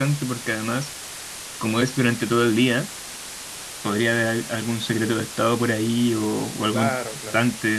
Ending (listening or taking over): taking over